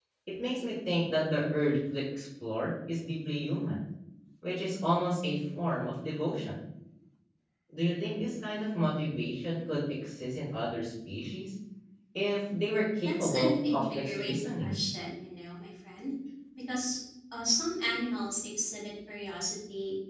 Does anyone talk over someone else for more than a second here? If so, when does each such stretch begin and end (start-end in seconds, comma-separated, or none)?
13.1-14.8